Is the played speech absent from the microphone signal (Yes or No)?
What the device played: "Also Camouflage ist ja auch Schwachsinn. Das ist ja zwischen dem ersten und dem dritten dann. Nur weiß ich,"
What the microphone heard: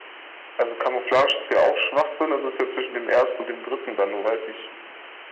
No